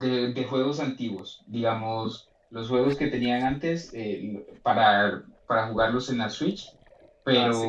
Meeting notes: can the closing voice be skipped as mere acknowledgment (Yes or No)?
No